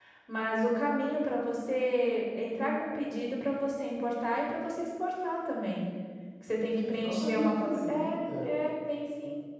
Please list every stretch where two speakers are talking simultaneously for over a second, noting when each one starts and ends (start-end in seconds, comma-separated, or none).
6.8-8.6